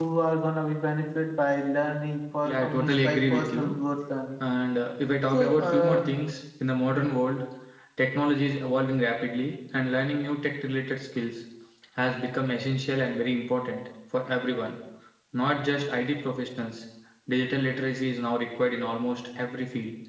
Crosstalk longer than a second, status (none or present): present